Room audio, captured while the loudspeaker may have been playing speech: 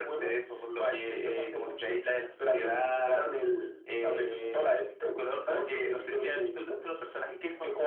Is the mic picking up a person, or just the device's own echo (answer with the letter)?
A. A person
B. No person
A